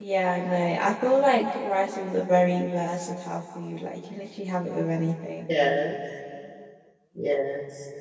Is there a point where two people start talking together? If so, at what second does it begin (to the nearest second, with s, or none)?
none